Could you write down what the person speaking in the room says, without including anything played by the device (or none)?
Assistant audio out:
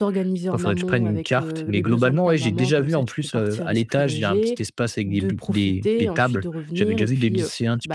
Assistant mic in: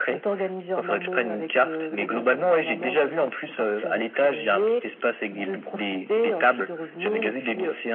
none